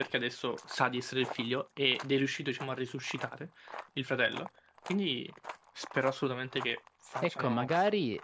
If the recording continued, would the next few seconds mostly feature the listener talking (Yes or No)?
Yes